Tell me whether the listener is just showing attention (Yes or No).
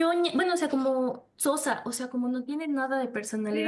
No